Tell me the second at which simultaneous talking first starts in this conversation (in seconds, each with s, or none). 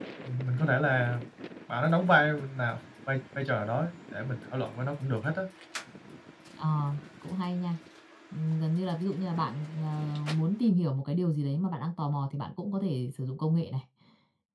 none